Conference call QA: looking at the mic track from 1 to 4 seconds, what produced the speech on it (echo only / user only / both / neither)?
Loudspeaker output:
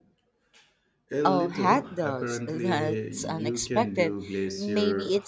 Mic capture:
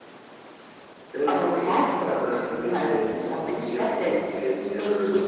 echo only